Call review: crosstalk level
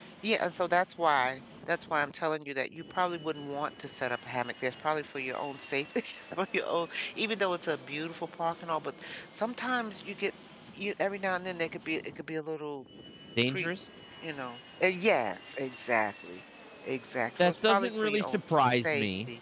present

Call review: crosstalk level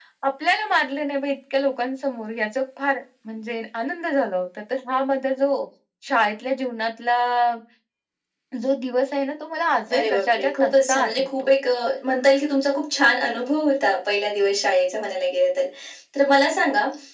present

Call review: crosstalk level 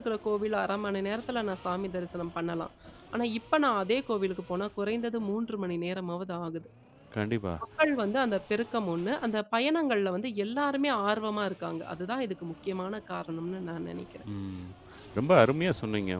none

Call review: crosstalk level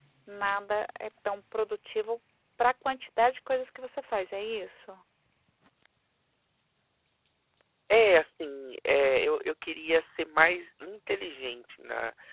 none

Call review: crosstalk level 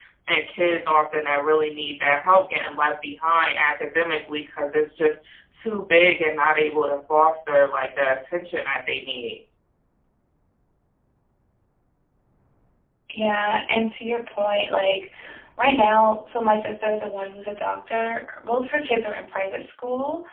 none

